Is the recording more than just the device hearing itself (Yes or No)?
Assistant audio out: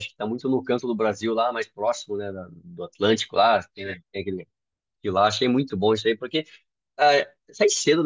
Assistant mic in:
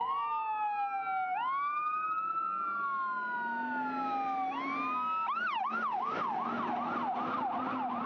No